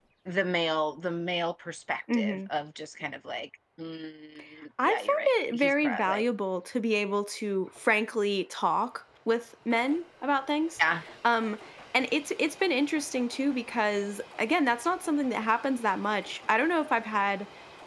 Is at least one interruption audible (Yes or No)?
Yes